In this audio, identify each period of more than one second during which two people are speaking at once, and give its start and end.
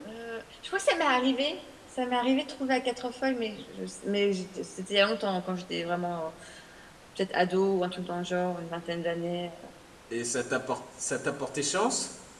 none

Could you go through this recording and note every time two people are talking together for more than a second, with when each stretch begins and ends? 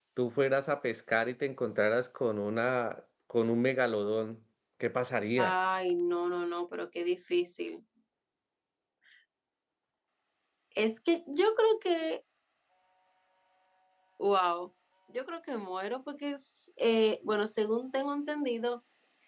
none

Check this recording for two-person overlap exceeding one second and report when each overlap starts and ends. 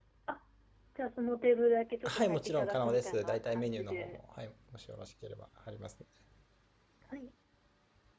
2.0-4.2

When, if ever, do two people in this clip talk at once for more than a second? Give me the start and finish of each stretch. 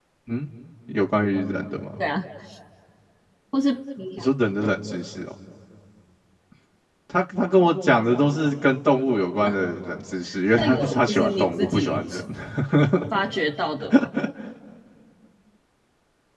10.6-12.2

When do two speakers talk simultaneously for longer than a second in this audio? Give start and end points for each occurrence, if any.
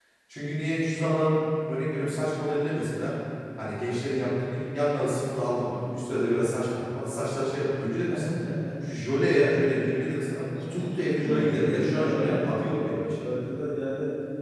11.2-13.2

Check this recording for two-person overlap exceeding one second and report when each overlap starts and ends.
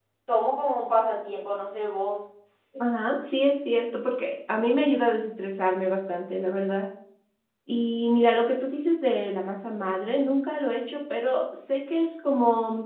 none

